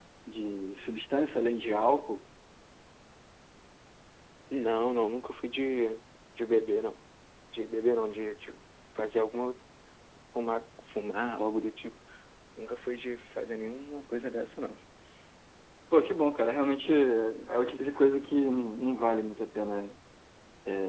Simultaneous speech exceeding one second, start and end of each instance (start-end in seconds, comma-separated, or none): none